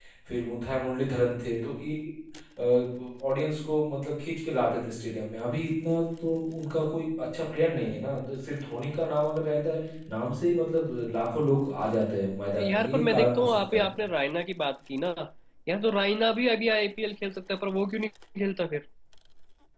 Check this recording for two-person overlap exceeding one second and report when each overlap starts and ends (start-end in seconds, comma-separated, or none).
12.6-13.9